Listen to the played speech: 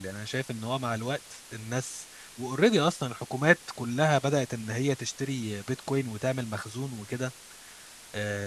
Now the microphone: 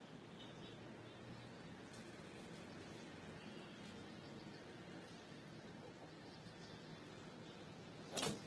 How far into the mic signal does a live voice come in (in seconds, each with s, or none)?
none